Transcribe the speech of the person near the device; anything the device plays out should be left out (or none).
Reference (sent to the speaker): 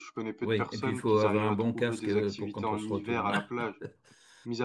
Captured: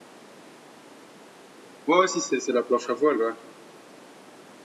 Ouais, ouais, si c'est c'est la planche à voile, ouais.